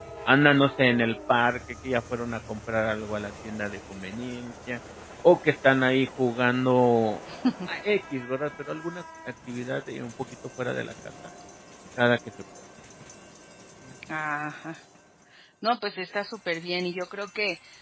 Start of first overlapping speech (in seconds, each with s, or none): none